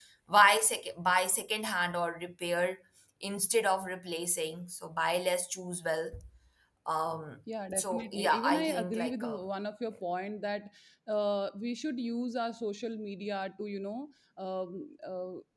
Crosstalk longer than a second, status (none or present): present